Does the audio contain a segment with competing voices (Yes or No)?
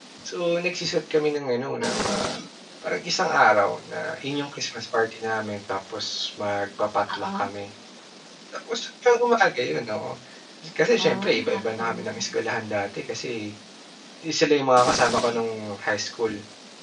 Yes